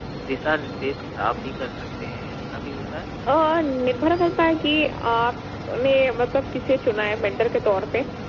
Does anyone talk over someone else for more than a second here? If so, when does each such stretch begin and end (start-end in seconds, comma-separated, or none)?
none